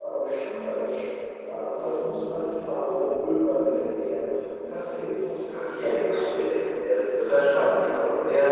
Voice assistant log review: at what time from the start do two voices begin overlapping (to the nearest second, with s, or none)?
5 s